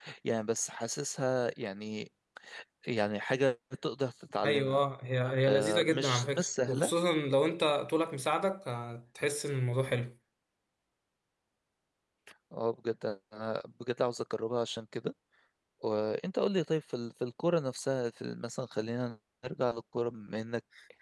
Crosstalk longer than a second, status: present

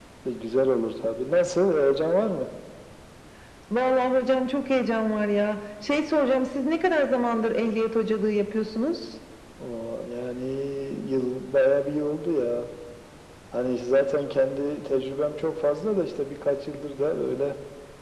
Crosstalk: none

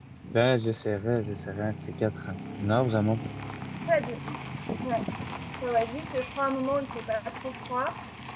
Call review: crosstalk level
none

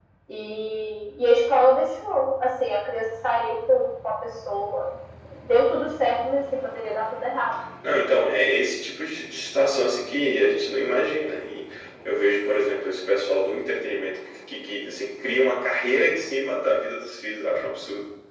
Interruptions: none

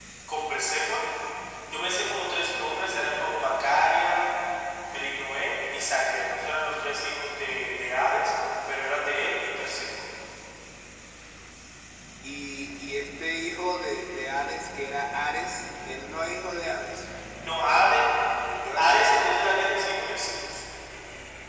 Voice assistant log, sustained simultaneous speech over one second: none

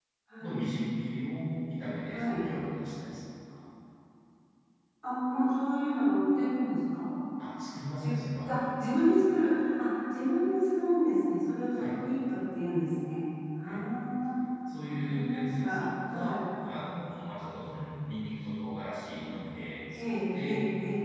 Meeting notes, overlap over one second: present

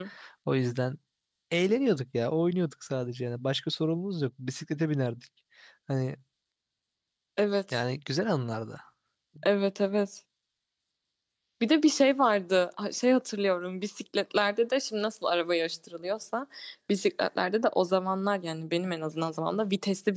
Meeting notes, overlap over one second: none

